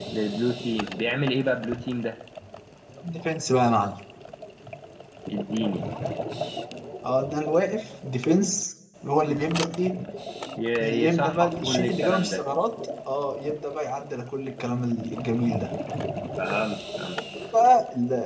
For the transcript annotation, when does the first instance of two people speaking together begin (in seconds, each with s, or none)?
10.8 s